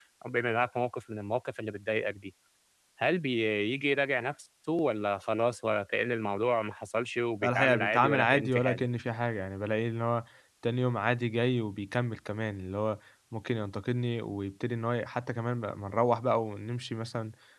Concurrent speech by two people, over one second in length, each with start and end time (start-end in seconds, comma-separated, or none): 7.4-8.8